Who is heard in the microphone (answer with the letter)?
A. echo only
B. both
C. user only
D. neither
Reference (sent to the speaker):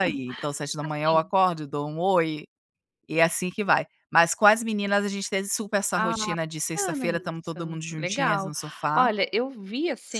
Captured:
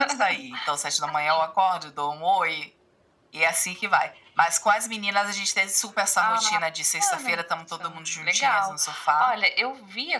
A